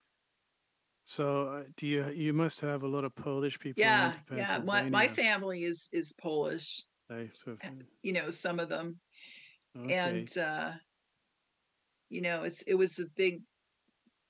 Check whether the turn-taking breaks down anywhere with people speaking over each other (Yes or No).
Yes